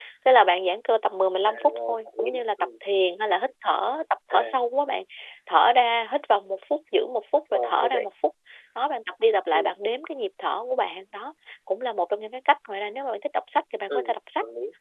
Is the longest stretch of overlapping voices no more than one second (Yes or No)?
No